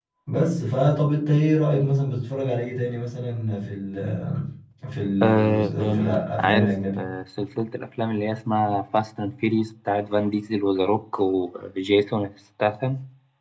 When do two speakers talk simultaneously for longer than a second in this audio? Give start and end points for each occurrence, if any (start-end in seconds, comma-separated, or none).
5.2-7.0